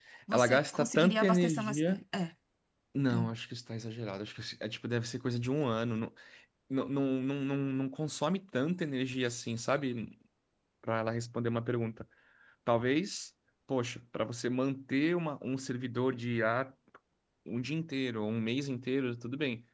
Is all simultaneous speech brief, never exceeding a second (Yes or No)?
No